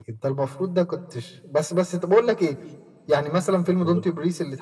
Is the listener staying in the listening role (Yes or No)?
Yes